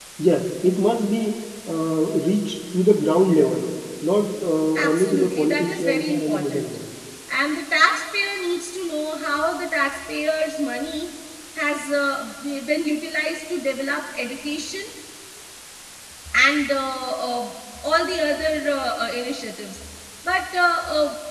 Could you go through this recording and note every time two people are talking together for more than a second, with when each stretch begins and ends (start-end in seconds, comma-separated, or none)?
4.8-6.8